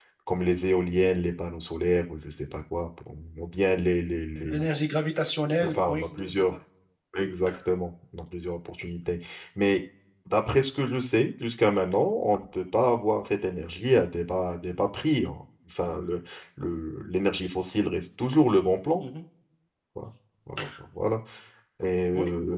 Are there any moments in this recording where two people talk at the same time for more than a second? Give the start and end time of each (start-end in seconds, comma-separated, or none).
none